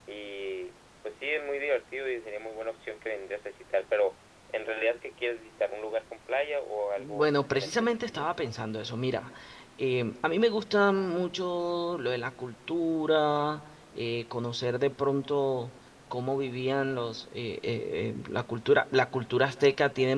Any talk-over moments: Yes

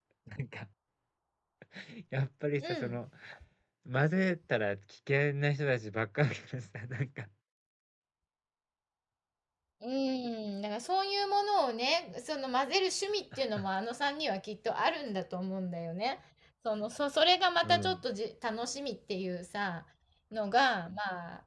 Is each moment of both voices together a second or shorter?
Yes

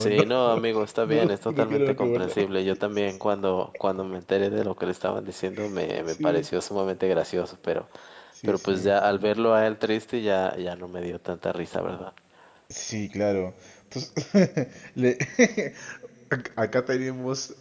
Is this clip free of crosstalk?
No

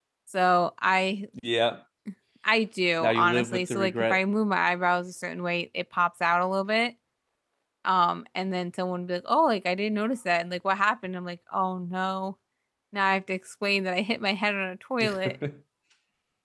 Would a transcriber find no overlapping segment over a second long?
No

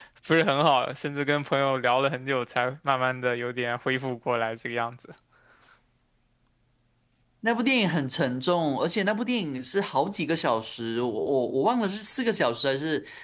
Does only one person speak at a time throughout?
Yes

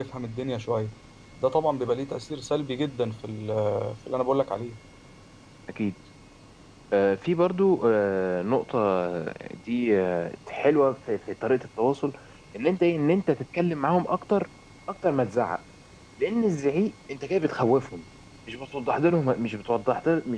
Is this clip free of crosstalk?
Yes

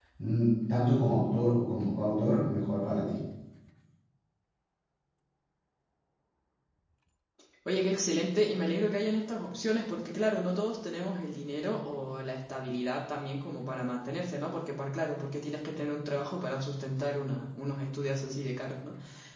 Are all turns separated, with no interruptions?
Yes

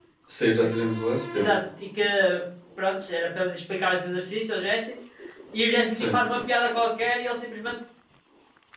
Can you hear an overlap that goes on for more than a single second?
No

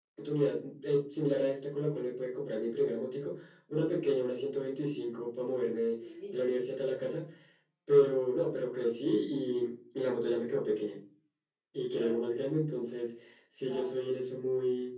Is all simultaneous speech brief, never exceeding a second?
Yes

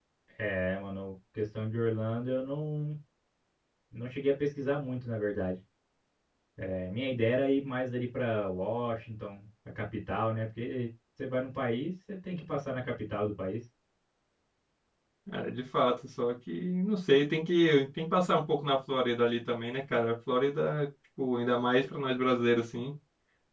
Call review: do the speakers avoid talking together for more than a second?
Yes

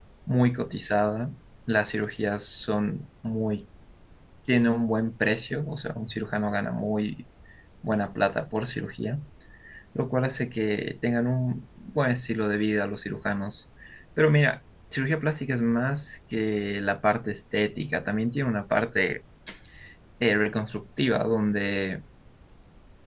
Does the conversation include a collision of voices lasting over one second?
No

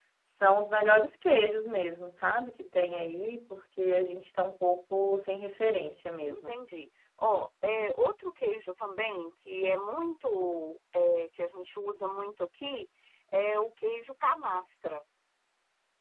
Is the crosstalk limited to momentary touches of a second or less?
Yes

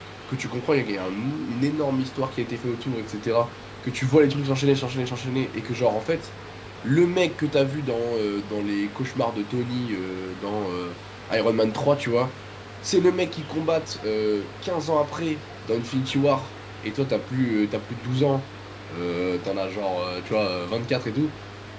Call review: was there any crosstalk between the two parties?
No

